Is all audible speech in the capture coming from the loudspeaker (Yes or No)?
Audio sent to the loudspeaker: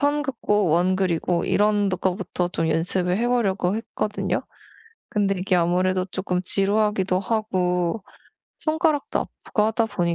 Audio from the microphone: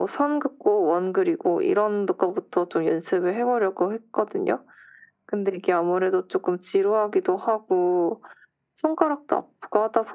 Yes